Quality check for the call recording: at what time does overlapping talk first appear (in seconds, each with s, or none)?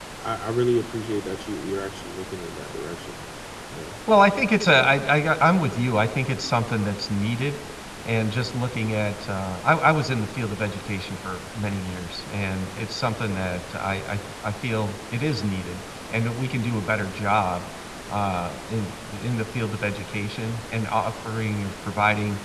none